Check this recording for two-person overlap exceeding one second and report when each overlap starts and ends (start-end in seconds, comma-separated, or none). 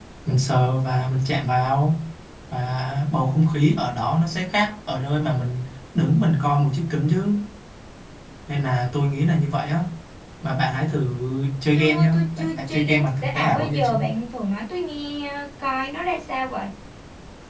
11.7-13.9